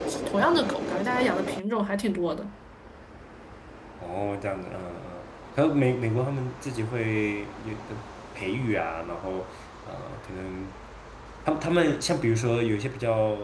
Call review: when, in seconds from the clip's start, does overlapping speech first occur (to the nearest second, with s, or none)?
none